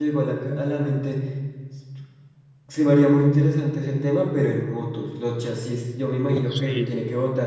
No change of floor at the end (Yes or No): Yes